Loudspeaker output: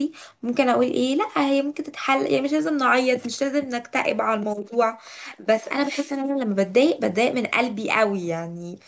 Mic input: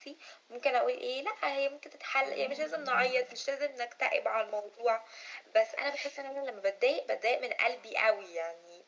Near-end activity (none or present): present